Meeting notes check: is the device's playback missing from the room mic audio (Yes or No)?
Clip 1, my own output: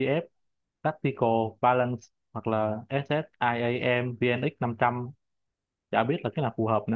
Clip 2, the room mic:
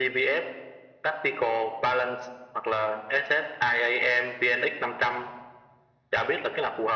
No